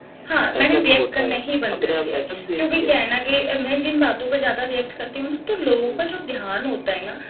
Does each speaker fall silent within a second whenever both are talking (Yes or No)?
No